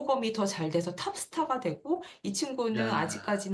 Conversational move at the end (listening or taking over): listening